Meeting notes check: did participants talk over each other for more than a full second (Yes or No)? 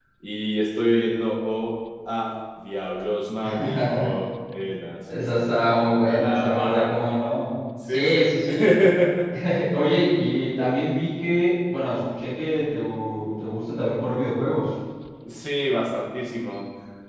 Yes